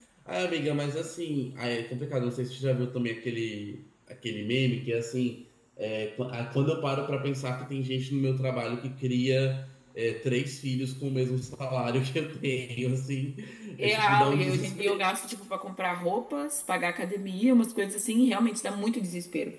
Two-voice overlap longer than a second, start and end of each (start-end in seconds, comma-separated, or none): 13.8-15.0